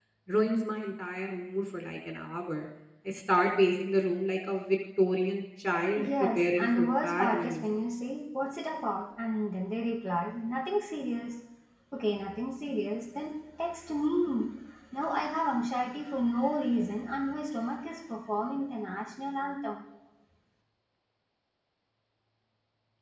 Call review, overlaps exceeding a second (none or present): present